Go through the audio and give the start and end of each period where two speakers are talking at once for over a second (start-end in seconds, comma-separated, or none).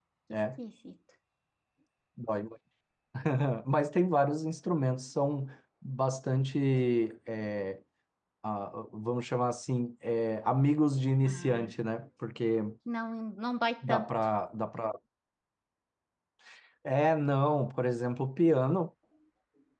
none